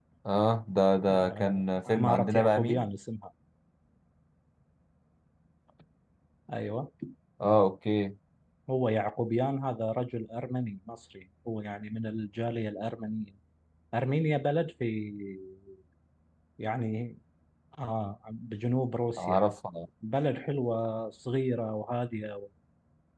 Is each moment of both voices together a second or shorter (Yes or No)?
No